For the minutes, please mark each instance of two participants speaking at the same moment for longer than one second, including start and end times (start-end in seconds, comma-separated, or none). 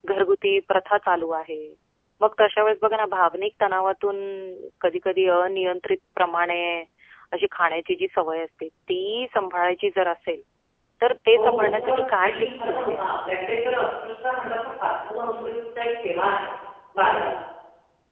11.4-13.2